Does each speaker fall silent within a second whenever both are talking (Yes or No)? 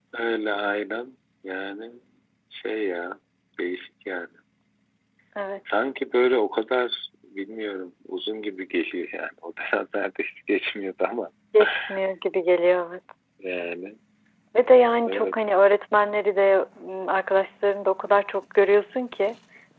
Yes